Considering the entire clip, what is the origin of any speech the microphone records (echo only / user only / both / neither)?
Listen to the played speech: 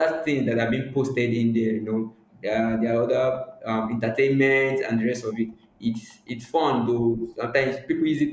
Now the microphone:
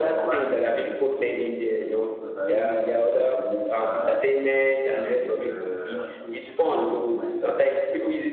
both